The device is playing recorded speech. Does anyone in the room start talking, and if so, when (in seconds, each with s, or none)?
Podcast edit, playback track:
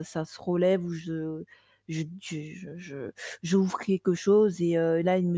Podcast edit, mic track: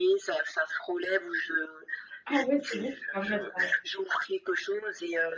2.2 s